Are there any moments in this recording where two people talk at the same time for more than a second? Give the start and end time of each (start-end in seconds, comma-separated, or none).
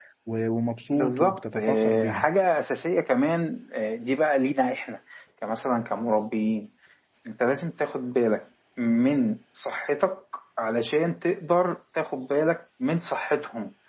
0.9-2.2